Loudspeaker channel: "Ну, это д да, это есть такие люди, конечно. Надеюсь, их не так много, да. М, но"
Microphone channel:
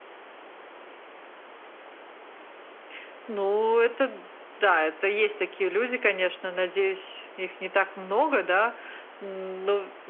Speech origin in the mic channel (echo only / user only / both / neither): echo only